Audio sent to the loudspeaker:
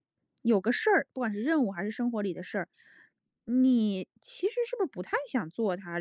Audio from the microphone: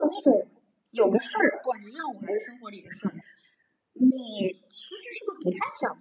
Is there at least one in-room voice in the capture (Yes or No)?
No